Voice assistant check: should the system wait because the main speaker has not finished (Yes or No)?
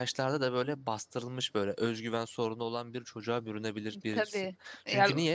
Yes